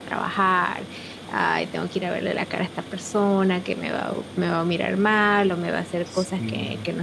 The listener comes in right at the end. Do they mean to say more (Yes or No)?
No